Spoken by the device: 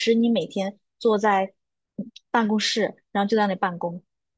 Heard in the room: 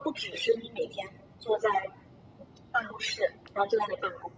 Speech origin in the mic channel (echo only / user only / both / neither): echo only